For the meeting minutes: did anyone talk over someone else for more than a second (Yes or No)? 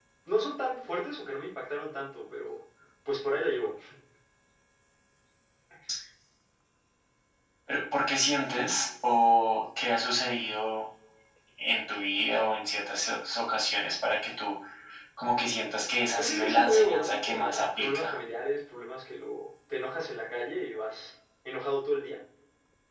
Yes